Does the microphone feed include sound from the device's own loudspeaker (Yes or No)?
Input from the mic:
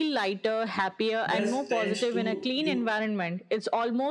Yes